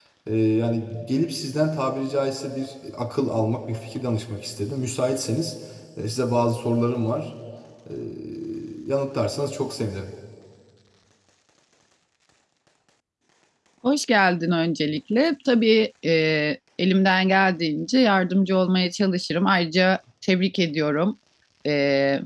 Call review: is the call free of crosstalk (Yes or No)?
Yes